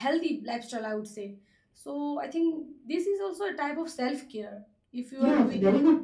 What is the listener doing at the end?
taking over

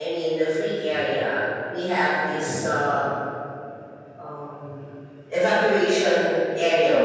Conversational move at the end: listening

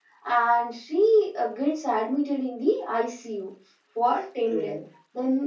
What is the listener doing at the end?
listening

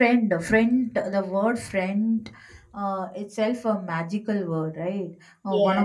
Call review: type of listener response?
listening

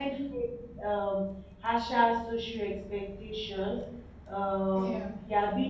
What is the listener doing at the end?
listening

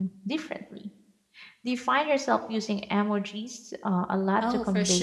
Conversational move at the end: taking over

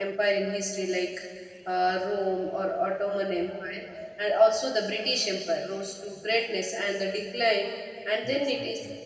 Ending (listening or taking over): listening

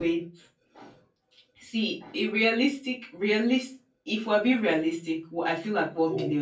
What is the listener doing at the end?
listening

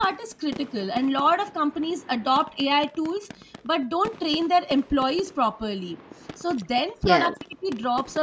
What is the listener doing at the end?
listening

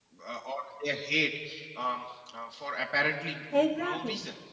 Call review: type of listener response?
listening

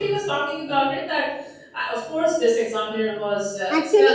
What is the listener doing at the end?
taking over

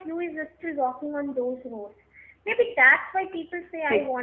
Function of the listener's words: listening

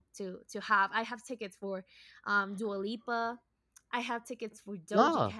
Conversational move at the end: listening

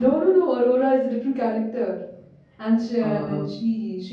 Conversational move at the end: listening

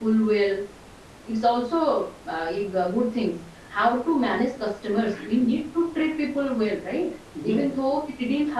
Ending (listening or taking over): listening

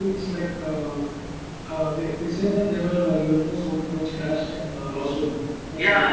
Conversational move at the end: taking over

